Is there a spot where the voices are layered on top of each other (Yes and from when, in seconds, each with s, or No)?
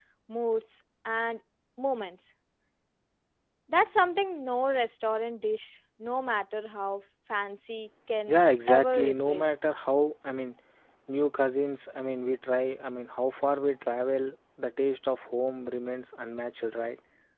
Yes, from 8.3 s